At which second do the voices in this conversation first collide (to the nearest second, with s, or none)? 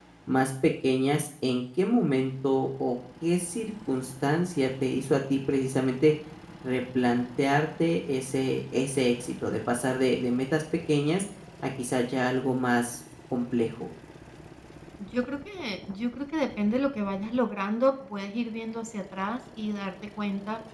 none